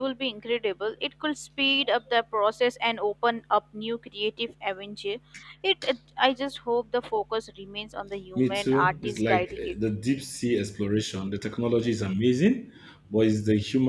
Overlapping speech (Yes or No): Yes